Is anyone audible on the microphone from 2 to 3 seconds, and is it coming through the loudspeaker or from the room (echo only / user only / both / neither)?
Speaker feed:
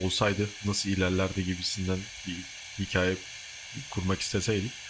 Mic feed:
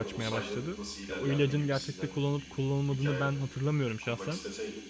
both